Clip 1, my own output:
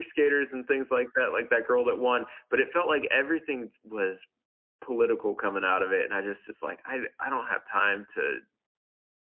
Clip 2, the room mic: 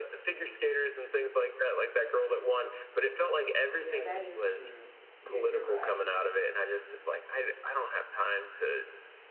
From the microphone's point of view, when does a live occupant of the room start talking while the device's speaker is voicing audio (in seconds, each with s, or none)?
3.8 s